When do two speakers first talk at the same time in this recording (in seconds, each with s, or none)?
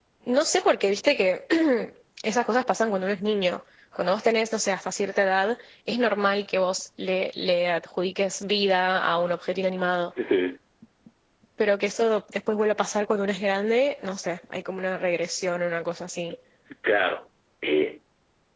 none